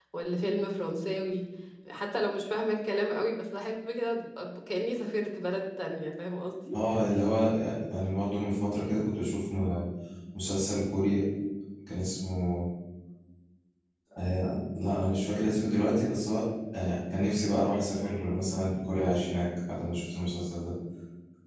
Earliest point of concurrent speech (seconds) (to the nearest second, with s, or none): none